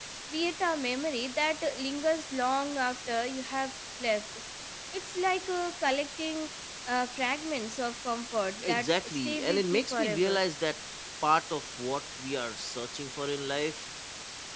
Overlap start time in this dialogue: 8.6 s

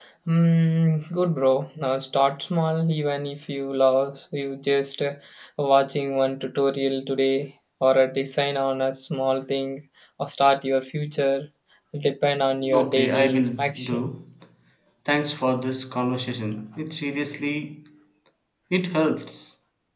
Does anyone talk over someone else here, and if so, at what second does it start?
12.7 s

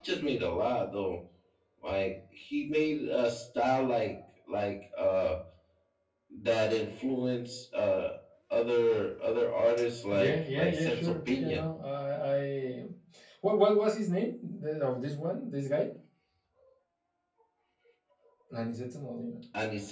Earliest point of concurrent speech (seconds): 10.1 s

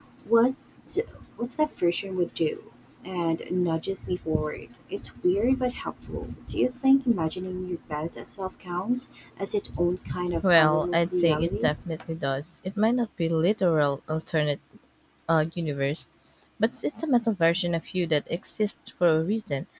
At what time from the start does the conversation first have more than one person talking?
10.4 s

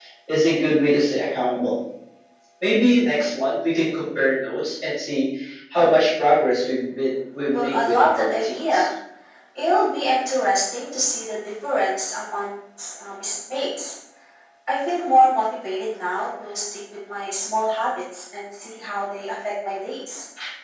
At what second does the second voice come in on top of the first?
7.5 s

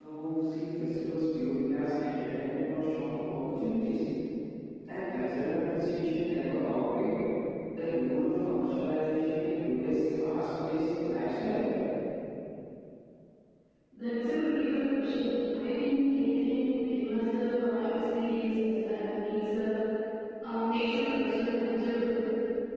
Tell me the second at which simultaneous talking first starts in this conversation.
none

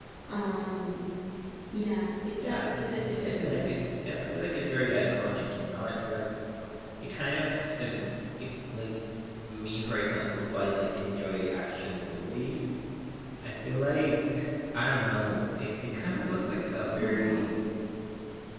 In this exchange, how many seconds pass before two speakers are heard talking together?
2.4 s

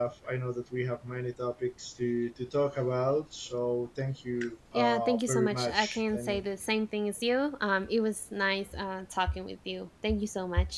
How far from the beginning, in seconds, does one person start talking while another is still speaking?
4.7 s

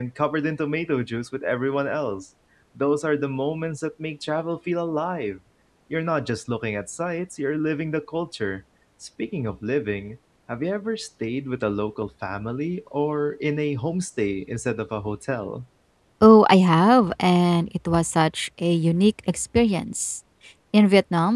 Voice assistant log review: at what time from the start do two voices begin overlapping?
none

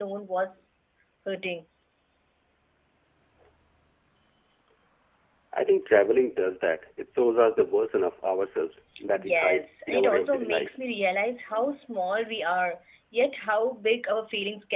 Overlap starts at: 9.2 s

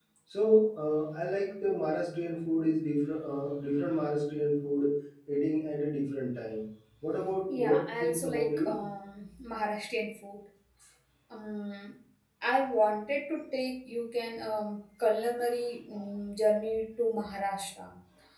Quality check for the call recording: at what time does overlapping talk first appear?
7.5 s

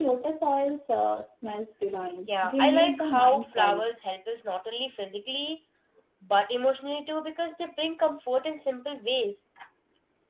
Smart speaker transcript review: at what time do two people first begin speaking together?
2.3 s

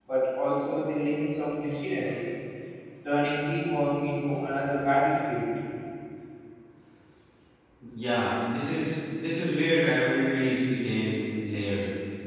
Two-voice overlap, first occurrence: none

